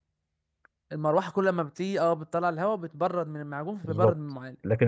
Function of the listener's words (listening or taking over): taking over